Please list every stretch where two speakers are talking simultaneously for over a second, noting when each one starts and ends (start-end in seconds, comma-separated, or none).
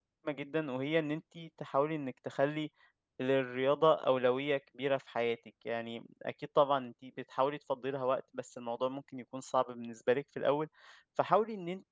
none